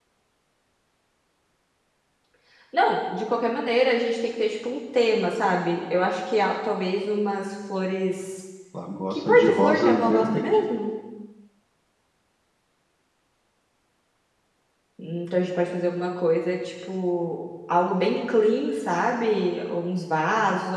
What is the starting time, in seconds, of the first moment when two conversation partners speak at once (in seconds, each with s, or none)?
9.1 s